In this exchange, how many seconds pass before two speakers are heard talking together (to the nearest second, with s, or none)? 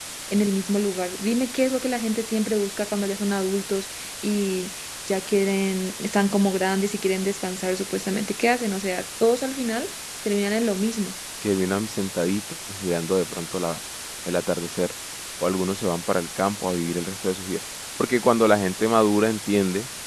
none